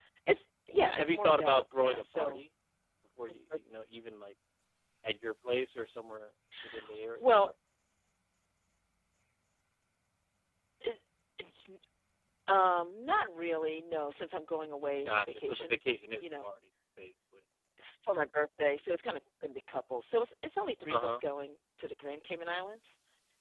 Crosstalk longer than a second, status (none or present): present